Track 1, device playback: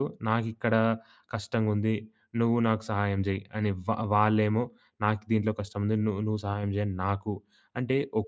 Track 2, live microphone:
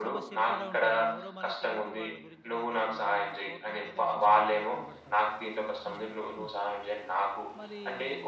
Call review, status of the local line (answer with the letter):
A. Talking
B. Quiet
A